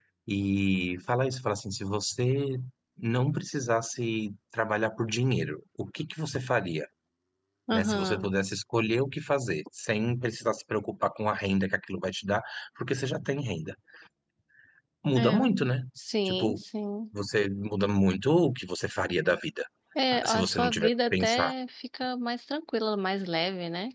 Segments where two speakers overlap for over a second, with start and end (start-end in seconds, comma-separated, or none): 20.1-21.5